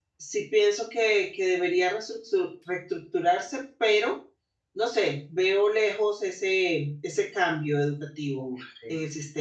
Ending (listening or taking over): taking over